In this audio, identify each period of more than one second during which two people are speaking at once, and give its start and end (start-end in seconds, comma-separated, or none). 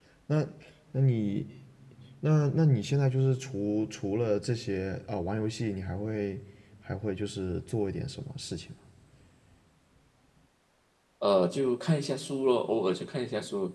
none